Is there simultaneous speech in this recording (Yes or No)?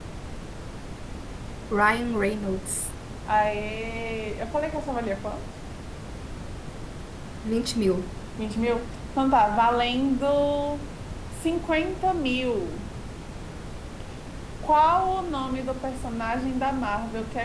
No